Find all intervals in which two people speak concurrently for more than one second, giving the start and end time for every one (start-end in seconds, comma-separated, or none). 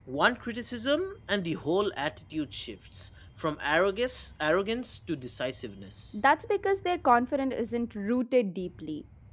none